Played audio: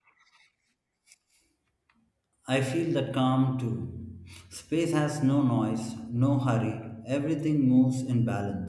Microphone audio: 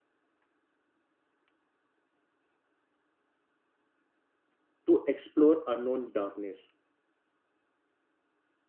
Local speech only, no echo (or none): to explore unknown darkness.